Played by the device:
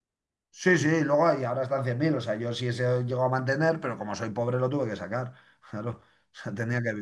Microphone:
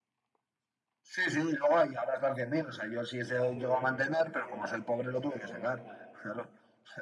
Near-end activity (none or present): present